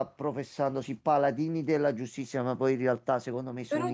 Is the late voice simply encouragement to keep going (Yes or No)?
No